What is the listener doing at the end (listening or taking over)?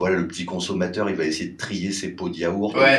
taking over